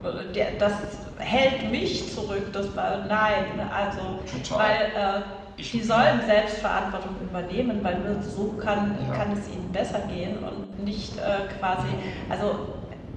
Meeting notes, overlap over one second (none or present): none